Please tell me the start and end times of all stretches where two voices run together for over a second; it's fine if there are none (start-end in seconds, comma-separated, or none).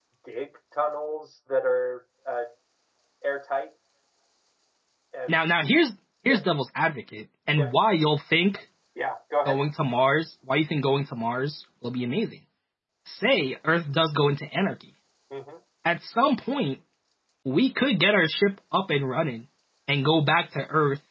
none